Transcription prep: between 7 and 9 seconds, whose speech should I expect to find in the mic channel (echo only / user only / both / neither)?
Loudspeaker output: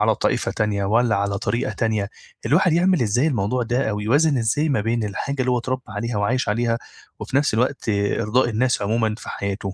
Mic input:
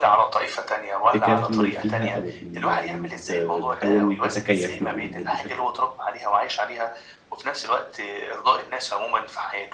echo only